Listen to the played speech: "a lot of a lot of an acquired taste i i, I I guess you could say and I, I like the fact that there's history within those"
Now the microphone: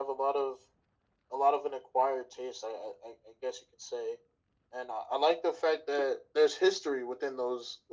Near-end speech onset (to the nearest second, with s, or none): none